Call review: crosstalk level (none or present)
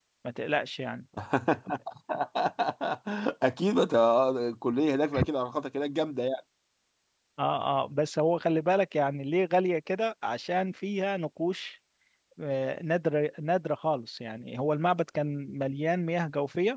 none